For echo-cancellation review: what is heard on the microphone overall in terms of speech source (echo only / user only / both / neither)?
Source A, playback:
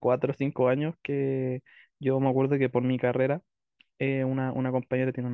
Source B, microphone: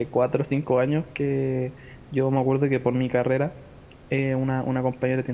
echo only